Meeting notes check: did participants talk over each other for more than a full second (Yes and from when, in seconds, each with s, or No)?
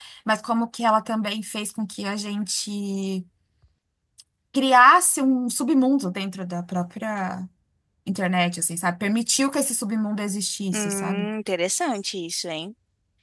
No